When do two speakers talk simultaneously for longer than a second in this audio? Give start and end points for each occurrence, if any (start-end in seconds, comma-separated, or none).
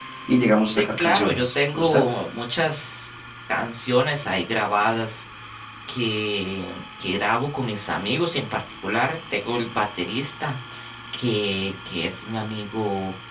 0.7-2.0